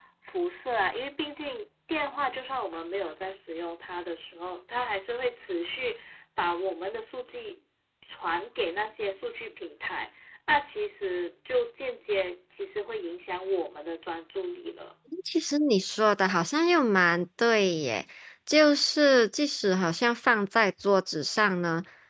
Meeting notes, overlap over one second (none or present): none